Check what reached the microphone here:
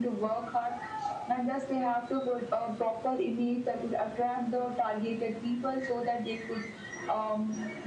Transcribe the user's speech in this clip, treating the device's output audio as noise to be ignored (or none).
none